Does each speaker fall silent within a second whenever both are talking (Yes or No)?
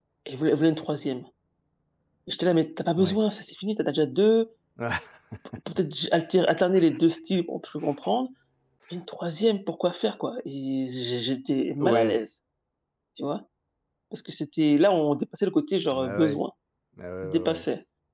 Yes